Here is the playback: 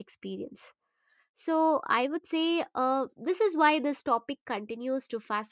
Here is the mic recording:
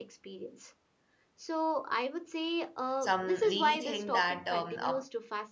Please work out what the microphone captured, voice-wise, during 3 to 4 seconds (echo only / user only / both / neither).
both